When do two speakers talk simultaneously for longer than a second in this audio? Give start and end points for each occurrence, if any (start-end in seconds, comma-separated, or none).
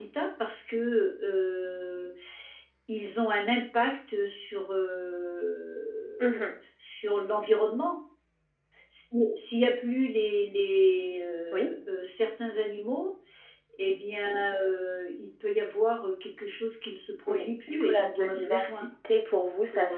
17.3-18.9